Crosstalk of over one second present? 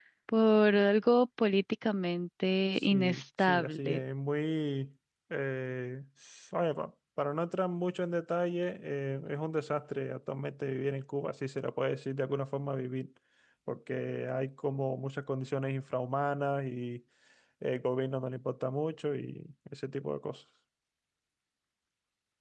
Yes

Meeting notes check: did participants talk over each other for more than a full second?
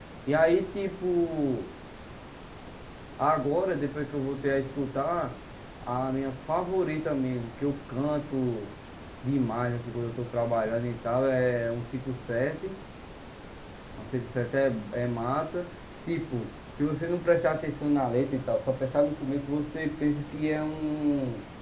No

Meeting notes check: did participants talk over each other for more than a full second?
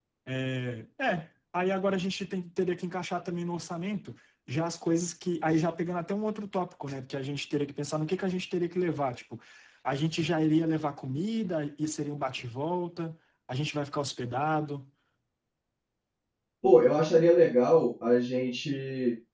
No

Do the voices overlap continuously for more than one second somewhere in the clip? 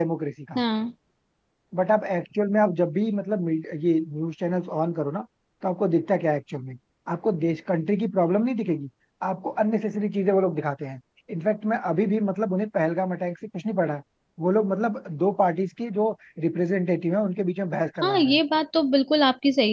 No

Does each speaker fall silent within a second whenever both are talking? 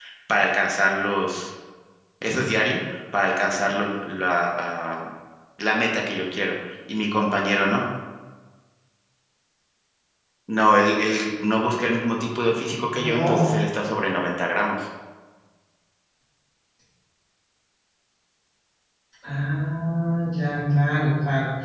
Yes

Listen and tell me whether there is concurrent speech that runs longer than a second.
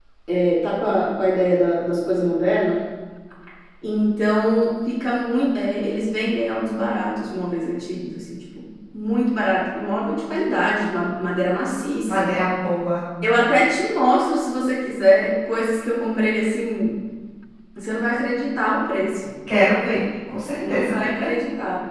No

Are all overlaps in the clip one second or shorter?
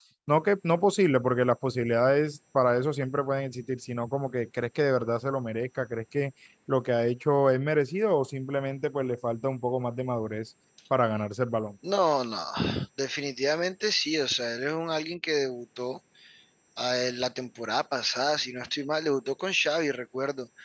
Yes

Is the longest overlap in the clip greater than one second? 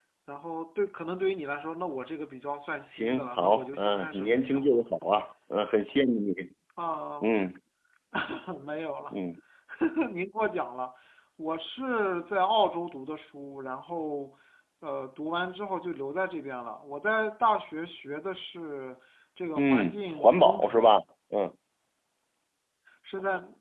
Yes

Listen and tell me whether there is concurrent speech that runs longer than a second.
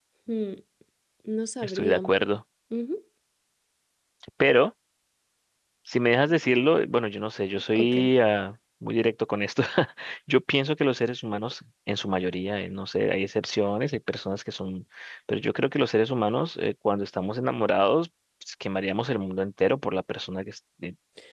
No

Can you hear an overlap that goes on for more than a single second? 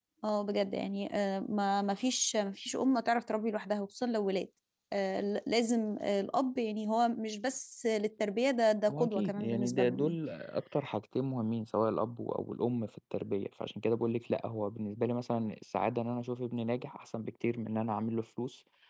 Yes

